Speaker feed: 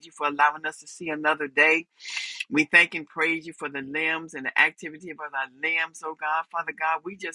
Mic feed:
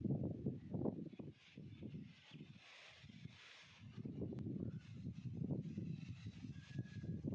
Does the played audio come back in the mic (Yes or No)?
No